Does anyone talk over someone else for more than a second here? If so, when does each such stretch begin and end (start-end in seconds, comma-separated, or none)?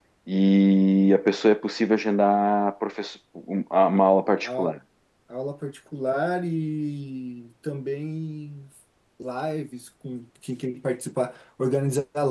none